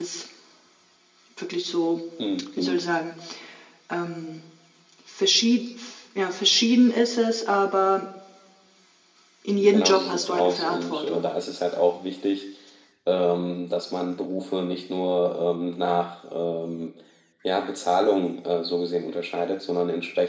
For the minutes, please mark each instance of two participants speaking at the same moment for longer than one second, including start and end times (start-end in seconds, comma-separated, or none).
9.6-11.3